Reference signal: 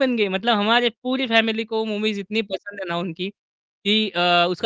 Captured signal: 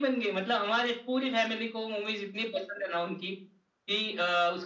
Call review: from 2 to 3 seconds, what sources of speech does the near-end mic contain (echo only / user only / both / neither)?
echo only